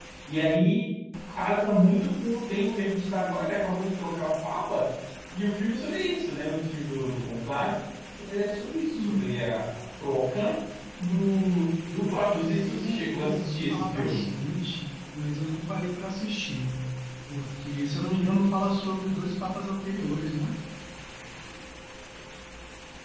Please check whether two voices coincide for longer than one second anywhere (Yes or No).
Yes